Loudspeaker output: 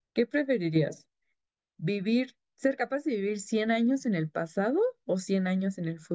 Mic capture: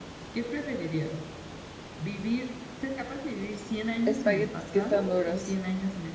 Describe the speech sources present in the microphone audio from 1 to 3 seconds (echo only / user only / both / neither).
echo only